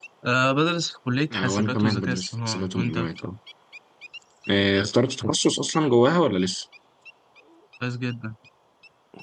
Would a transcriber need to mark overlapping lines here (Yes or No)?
Yes